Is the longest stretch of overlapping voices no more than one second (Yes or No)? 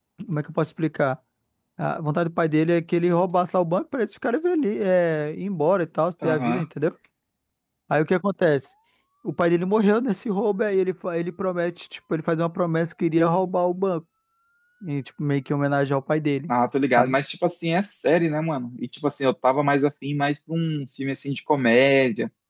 Yes